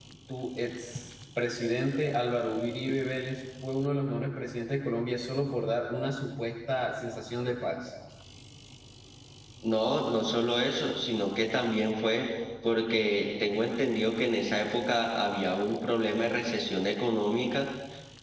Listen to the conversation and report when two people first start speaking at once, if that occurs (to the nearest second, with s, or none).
none